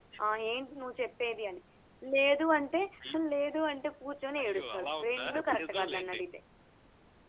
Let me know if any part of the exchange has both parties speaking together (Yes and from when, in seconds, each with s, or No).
Yes, from 4.4 s